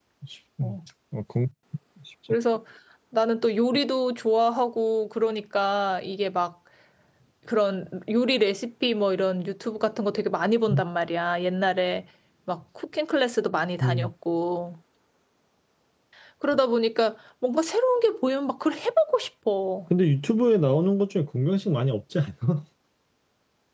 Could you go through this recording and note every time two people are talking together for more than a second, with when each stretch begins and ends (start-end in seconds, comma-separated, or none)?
none